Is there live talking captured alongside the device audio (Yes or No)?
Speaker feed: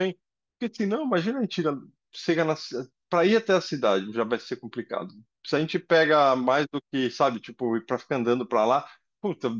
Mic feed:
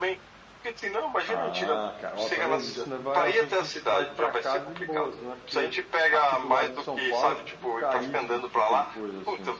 Yes